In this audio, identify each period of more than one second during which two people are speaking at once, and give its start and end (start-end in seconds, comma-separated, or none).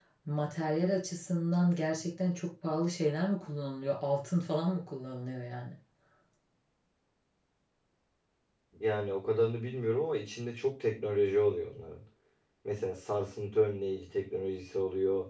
none